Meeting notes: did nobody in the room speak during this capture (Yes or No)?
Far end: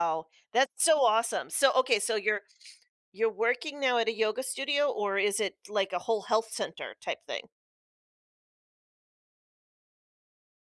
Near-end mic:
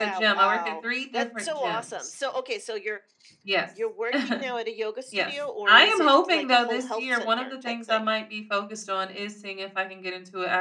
No